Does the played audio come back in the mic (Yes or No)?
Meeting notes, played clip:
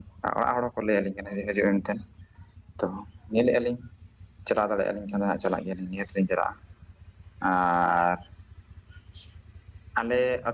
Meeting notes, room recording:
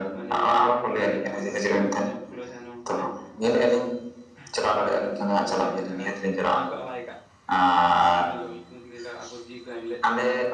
Yes